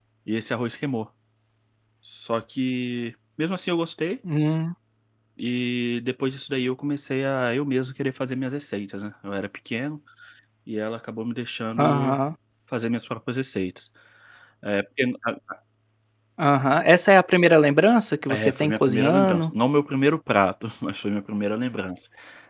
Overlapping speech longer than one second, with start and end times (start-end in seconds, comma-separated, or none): 18.3-19.5